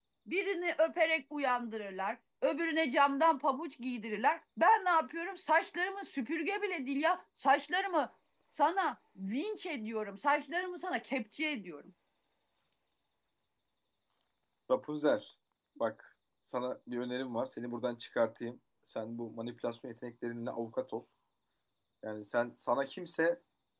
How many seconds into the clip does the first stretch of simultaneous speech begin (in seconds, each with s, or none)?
none